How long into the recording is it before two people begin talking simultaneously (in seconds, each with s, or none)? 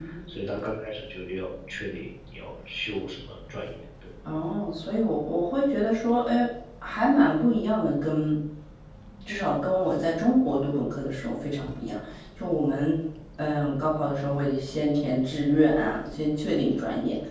none